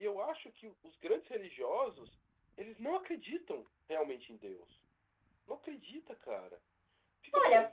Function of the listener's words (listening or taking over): taking over